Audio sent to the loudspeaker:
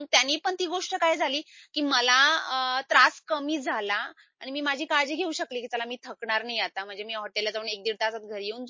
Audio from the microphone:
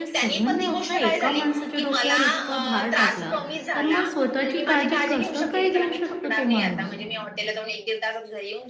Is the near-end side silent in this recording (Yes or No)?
No